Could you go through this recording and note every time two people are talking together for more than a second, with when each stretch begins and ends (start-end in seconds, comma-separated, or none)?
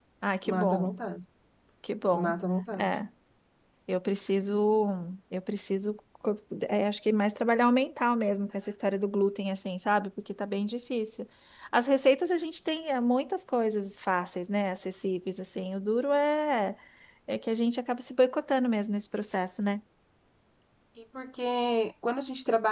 none